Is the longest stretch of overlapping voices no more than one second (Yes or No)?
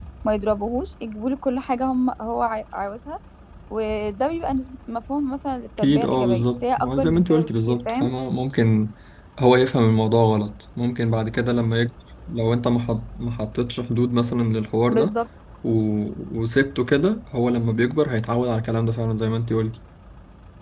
No